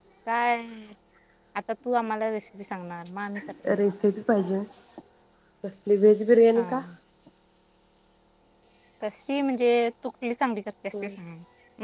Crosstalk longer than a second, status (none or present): none